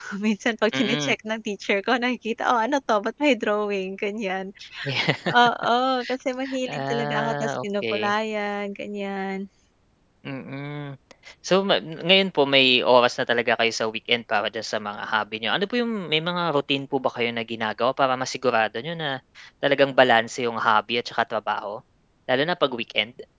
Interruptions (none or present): present